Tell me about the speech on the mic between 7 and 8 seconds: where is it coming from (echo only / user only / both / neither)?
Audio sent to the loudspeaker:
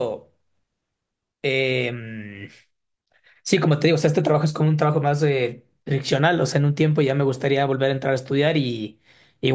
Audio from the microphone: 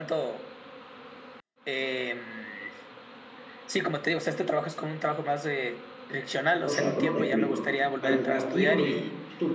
both